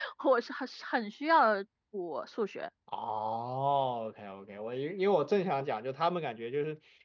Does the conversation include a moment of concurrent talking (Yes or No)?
No